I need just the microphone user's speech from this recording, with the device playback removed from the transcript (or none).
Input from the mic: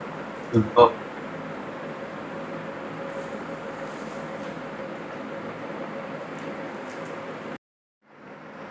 بالضبط.